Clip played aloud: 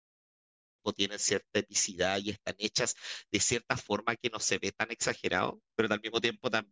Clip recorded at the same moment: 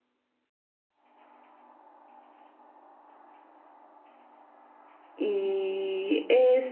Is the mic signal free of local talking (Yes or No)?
No